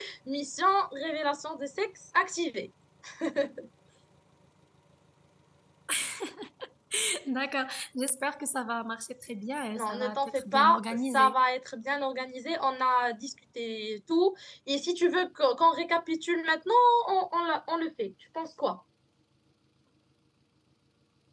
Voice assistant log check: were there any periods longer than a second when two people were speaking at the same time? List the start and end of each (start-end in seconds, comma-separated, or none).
9.8-11.3